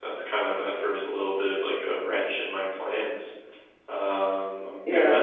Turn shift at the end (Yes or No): No